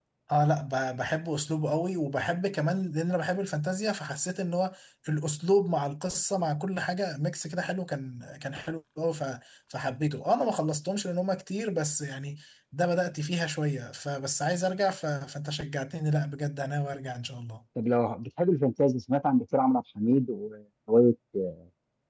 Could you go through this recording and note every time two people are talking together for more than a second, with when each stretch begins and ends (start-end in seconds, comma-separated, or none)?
none